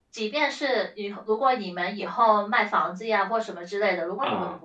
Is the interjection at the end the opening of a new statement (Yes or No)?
No